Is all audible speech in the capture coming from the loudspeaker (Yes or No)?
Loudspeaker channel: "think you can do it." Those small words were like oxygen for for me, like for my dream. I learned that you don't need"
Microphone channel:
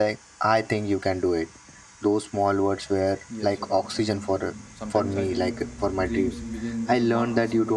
No